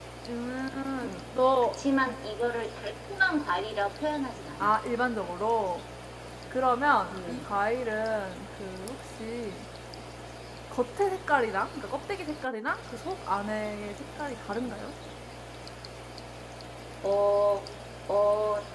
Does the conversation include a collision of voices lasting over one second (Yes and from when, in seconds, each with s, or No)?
No